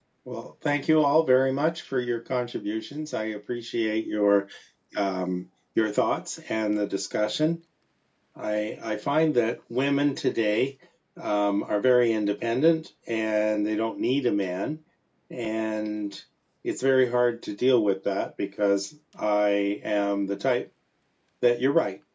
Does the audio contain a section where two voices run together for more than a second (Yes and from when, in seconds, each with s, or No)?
No